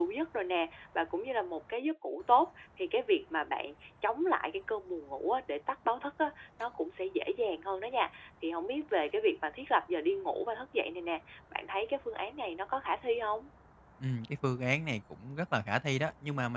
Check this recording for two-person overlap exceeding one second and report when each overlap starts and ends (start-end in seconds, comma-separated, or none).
none